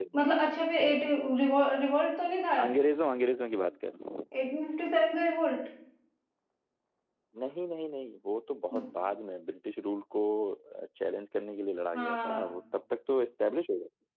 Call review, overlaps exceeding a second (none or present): none